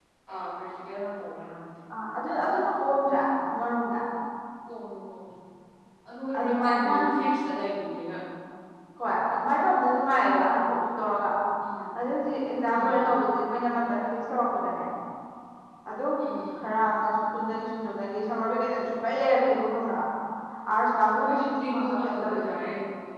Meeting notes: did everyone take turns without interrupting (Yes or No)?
No